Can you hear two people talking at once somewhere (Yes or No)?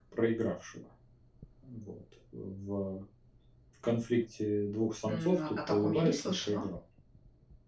Yes